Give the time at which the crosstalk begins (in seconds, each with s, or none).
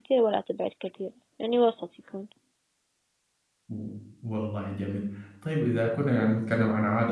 none